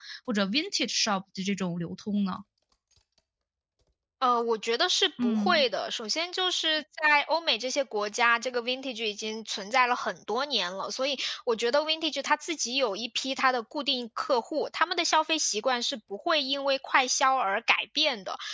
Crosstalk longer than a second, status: none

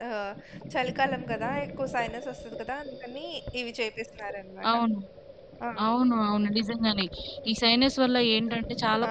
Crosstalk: none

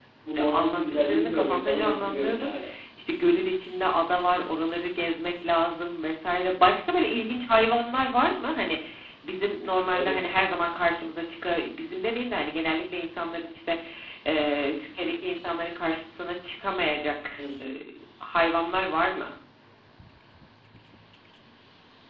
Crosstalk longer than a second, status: present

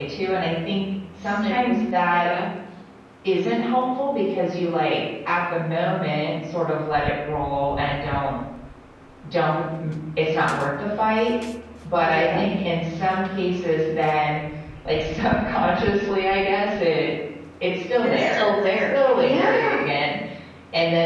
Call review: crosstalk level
present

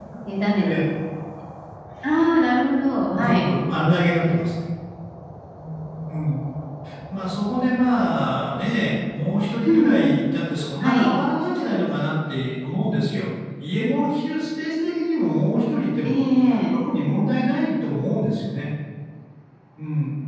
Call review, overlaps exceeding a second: none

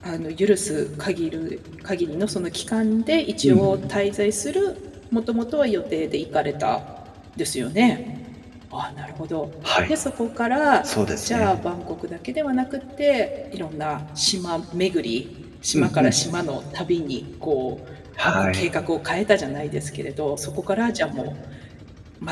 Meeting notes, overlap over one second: none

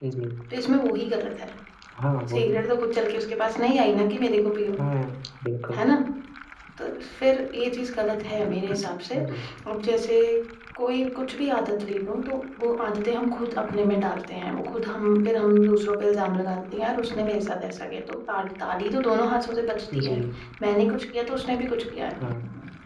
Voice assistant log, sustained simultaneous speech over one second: none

